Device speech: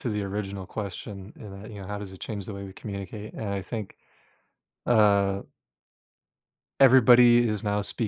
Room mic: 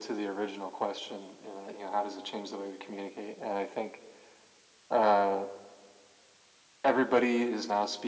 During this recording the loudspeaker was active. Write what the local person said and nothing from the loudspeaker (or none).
none